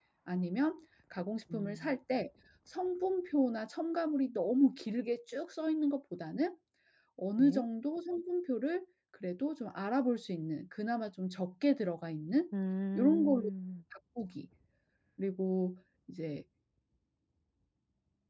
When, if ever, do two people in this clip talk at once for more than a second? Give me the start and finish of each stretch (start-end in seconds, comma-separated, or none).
none